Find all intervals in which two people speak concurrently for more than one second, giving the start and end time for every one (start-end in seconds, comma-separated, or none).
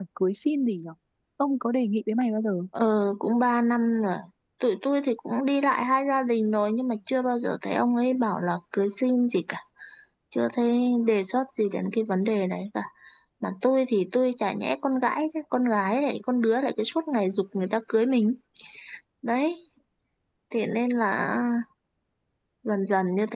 none